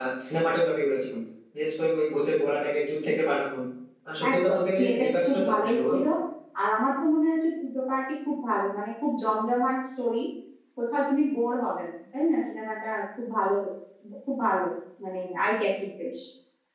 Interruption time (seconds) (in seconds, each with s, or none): 4.3 s